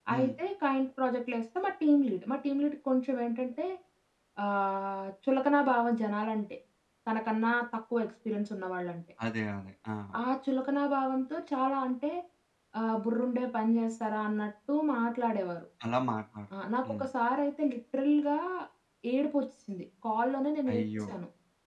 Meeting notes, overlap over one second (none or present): none